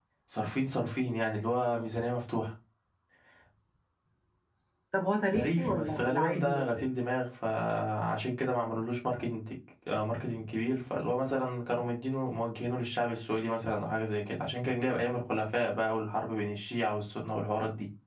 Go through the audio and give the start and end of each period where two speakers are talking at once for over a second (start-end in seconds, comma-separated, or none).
5.3-6.8